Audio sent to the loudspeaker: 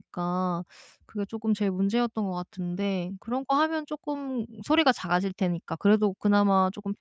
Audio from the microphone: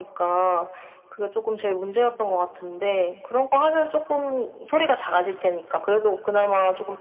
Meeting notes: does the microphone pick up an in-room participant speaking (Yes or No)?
No